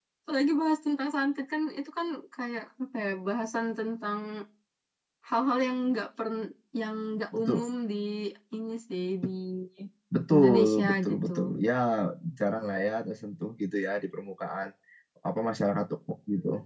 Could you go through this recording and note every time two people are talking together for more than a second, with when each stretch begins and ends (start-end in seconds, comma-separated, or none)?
10.3-11.5